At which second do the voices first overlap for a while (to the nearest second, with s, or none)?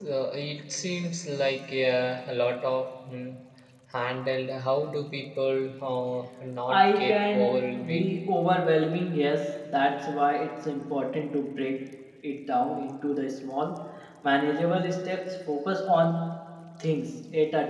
7 s